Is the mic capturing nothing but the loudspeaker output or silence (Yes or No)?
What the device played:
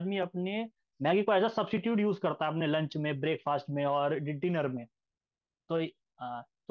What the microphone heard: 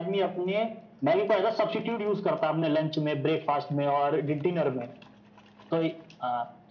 Yes